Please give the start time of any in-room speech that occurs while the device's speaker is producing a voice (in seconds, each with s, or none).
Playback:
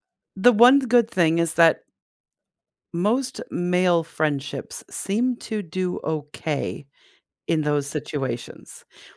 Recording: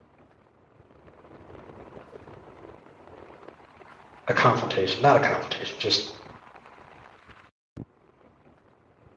4.3 s